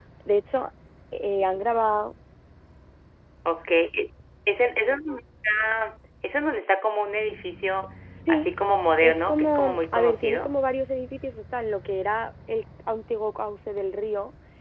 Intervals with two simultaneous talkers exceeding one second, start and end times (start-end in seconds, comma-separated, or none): 9.0-10.5